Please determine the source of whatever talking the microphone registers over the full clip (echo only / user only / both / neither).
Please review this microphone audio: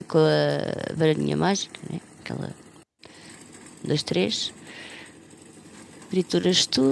user only